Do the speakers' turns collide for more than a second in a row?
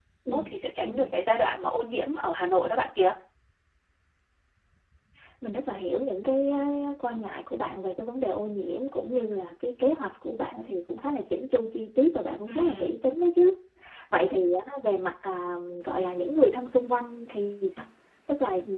No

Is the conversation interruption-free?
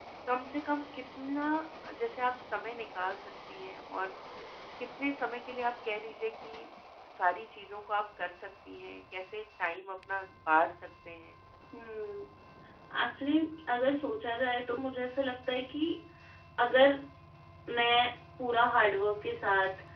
Yes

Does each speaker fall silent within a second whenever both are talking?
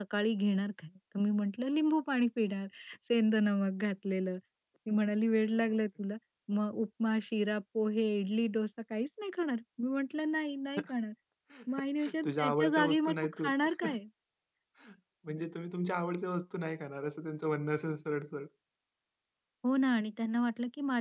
No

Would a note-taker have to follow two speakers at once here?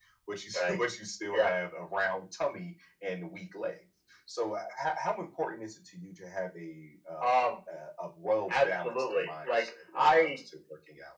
Yes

